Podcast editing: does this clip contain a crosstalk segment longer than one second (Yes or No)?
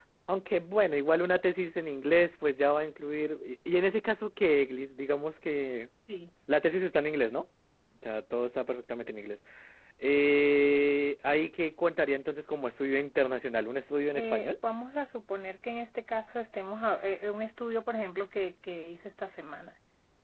No